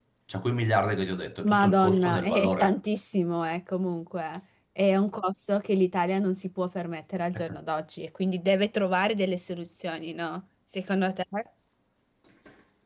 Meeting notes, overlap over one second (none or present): present